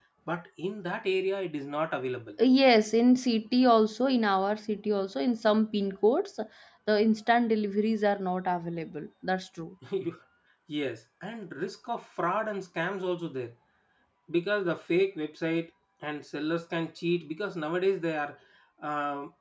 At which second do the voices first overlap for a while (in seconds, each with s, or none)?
none